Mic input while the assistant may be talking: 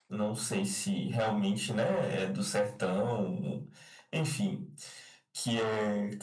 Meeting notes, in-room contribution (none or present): none